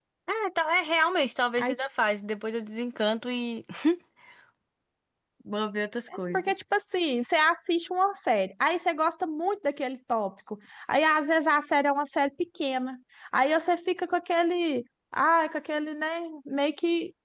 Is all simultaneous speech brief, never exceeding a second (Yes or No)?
Yes